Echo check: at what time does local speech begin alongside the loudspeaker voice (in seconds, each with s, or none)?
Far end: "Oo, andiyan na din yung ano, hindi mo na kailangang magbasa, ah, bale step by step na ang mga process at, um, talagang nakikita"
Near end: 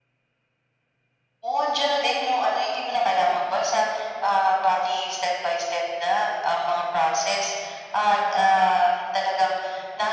none